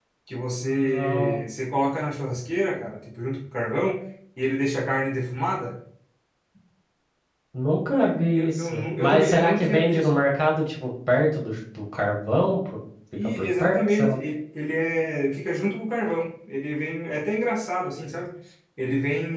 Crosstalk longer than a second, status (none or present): present